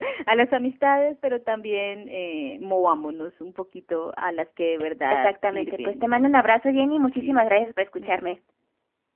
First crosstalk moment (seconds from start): 5.1 s

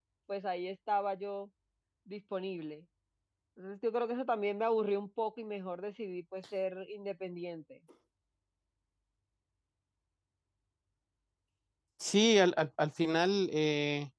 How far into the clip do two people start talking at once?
none

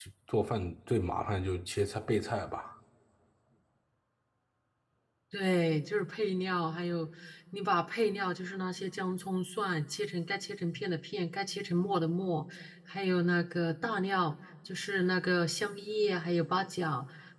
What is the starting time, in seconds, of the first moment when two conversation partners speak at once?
none

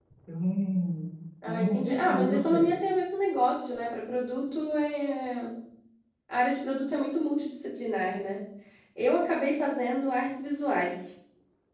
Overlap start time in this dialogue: 1.4 s

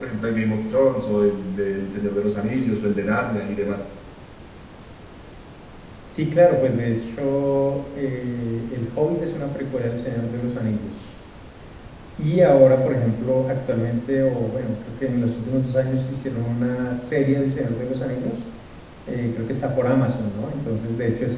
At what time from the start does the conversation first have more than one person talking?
none

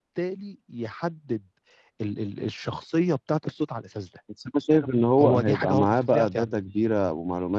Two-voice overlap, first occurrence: 5.2 s

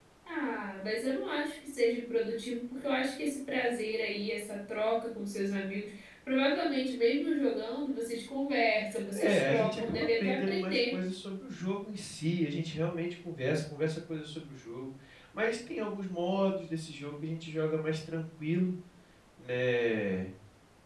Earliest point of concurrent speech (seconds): 9.2 s

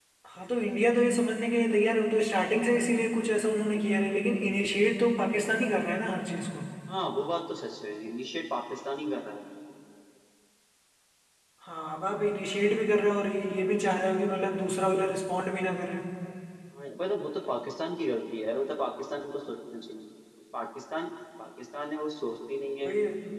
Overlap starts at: none

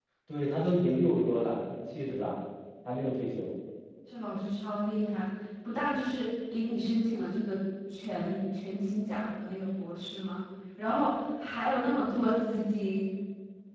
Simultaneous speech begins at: none

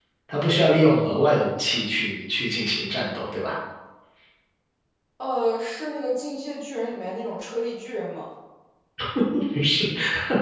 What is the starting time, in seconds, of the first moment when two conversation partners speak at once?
none

